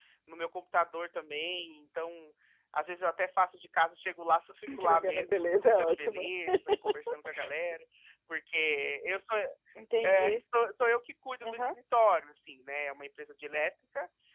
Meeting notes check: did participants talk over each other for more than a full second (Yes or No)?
Yes